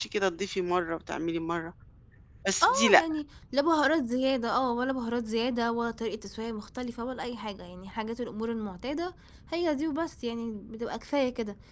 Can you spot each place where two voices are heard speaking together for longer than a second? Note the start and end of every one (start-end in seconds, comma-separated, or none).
none